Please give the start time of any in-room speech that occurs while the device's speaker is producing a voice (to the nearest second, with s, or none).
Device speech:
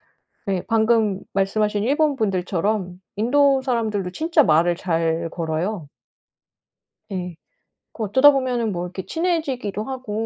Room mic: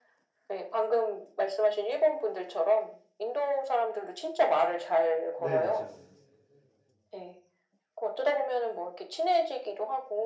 5 s